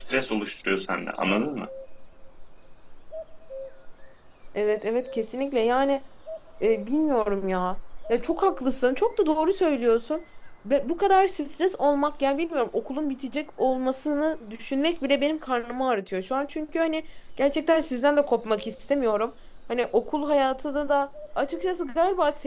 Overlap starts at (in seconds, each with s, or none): none